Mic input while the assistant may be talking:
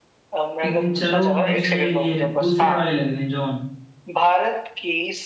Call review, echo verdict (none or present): present